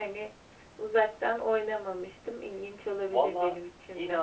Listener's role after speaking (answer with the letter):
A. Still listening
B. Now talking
B